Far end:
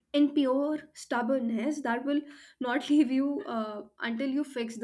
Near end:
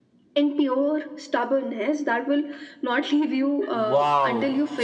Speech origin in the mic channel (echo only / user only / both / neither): both